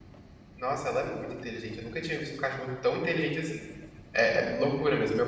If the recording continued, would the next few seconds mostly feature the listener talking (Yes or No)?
No